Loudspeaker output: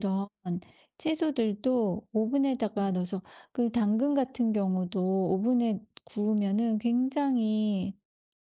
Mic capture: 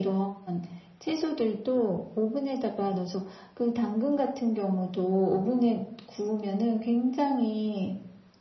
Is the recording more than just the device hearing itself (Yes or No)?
No